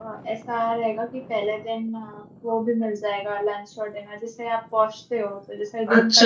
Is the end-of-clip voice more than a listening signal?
Yes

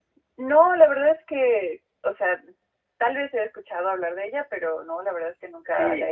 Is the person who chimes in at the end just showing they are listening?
No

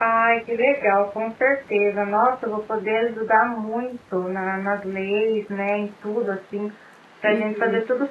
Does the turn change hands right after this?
No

